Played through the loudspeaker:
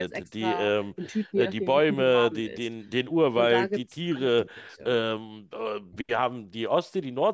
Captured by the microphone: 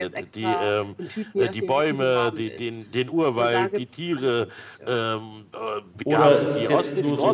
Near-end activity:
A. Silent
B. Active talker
B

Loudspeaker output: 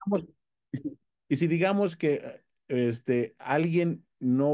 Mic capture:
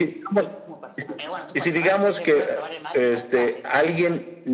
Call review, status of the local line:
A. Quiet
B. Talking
B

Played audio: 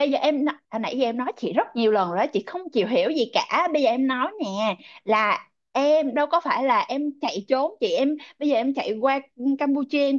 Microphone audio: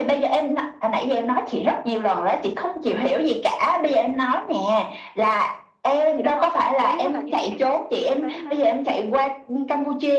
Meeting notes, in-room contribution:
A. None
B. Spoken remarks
B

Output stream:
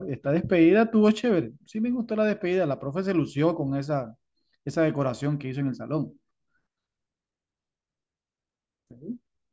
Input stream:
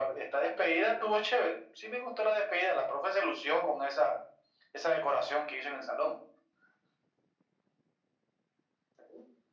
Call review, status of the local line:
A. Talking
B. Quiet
B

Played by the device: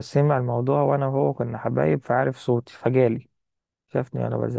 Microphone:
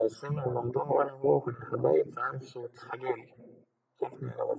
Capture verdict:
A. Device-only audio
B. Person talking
A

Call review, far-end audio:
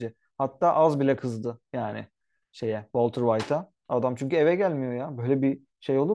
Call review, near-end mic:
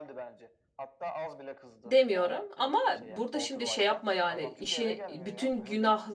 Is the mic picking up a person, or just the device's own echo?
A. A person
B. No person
A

